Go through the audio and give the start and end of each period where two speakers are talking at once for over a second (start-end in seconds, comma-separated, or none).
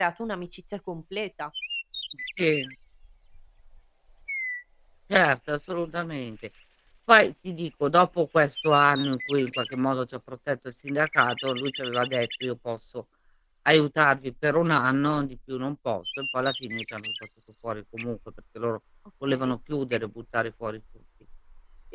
none